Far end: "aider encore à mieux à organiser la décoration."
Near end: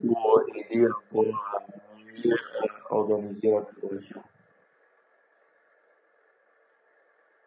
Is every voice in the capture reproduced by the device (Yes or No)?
Yes